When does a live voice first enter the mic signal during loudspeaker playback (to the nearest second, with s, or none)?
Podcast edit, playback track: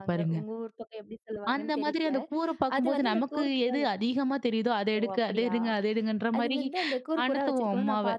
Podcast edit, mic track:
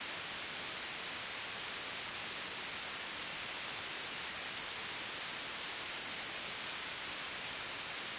none